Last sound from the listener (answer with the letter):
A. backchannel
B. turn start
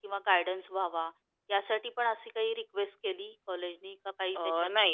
B